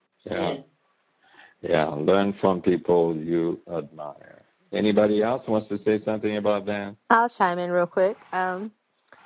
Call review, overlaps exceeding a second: none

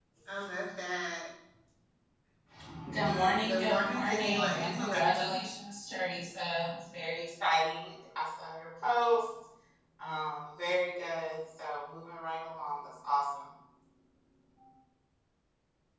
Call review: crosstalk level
present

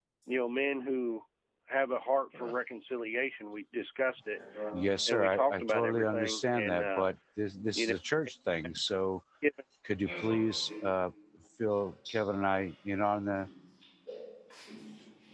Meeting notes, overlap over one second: present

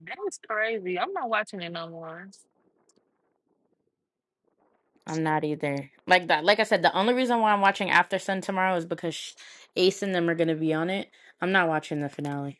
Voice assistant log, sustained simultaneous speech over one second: none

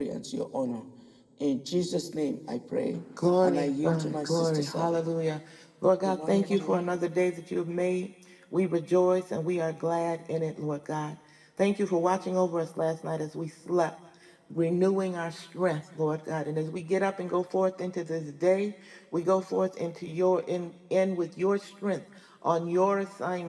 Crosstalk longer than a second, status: present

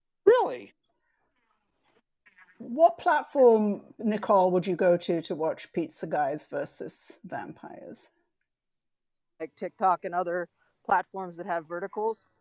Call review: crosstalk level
none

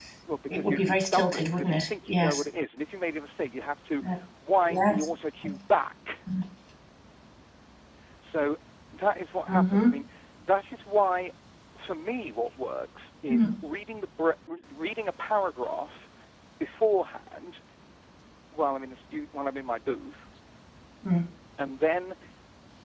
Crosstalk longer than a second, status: present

